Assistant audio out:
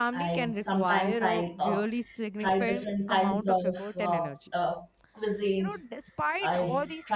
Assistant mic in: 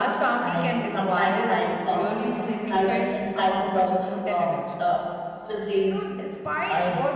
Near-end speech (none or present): none